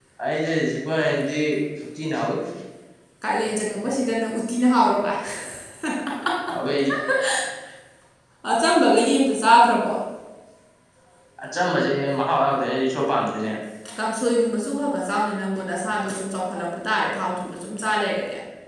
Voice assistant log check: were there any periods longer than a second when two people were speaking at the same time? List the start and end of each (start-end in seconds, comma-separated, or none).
none